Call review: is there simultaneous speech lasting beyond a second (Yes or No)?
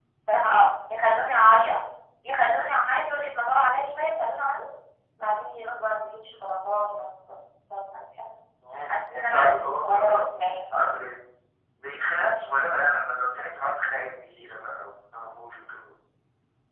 Yes